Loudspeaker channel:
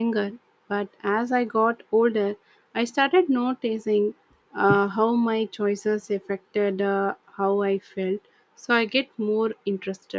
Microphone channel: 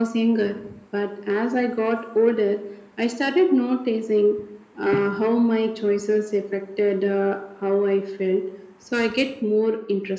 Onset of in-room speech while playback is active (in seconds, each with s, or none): none